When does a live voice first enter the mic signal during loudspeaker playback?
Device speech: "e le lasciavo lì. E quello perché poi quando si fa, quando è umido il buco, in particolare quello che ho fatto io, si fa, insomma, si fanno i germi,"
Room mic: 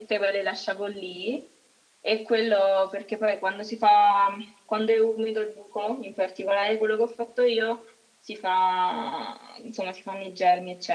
none

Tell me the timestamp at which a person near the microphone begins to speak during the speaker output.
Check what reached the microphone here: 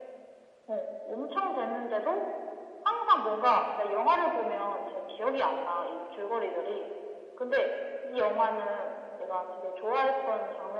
none

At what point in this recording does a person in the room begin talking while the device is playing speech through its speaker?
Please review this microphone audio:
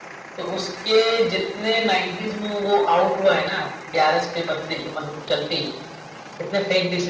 none

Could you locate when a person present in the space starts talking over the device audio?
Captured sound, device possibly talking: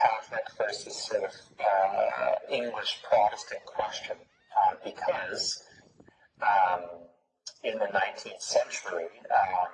none

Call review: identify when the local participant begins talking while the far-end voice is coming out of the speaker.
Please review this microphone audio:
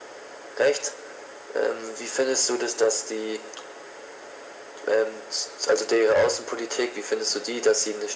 none

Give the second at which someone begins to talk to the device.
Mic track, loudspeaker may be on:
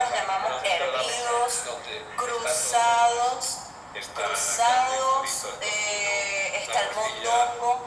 none

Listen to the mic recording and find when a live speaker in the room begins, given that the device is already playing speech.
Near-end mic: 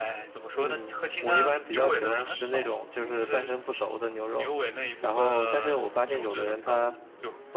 1 s

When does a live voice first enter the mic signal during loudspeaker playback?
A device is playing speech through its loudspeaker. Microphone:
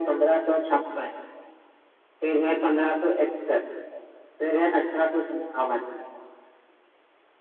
none

